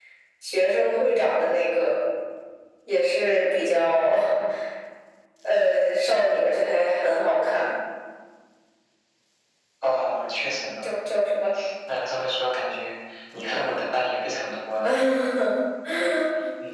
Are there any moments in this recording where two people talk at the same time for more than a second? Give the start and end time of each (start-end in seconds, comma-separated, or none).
none